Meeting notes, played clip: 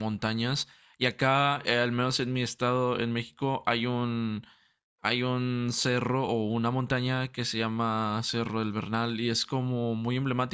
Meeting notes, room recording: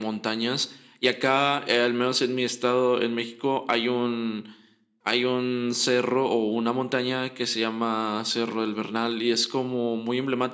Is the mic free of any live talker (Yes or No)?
Yes